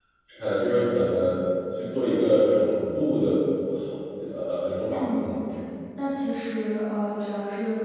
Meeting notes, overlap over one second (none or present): none